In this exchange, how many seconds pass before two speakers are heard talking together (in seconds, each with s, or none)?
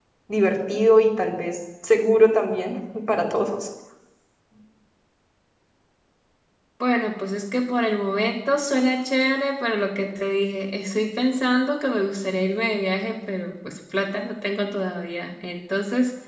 none